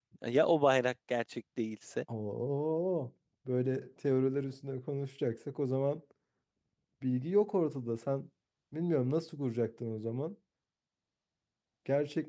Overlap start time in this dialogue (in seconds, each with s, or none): none